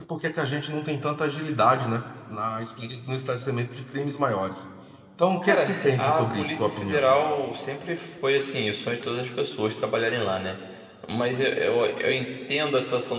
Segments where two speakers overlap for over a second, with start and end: 5.4-7.0

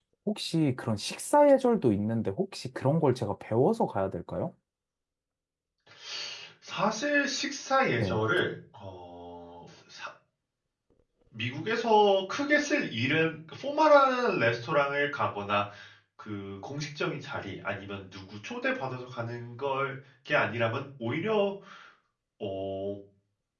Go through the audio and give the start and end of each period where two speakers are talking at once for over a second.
none

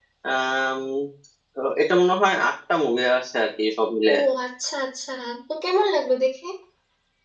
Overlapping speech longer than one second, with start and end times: none

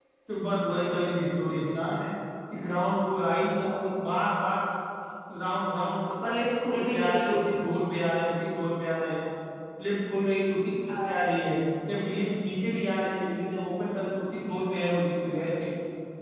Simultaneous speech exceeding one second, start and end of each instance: 6.3-7.5

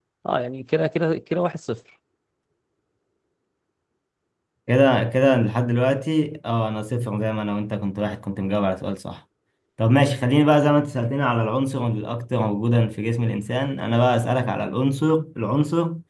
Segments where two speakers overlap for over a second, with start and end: none

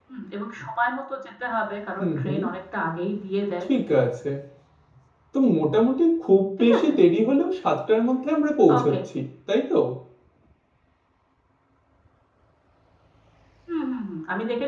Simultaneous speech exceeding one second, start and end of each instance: none

